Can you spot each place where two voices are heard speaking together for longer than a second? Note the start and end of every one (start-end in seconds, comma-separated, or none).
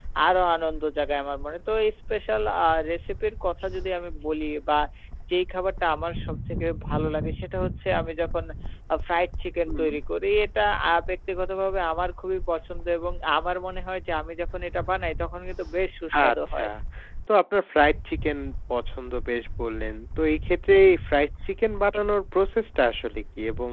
none